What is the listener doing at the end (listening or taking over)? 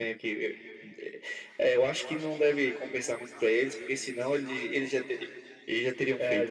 taking over